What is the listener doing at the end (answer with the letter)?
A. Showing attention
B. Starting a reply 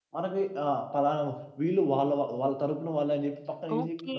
B